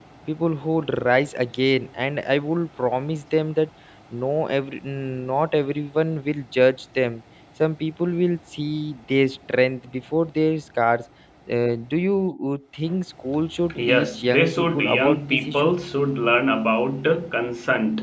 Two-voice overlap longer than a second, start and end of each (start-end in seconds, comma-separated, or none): 13.9-15.7